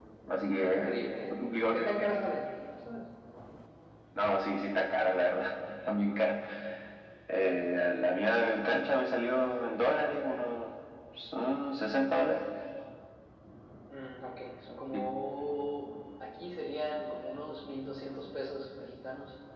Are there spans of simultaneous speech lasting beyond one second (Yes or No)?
Yes